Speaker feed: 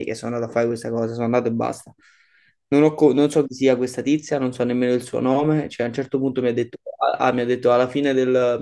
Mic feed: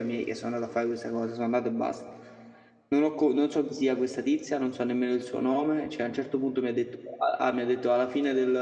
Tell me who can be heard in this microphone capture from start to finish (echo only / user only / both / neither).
echo only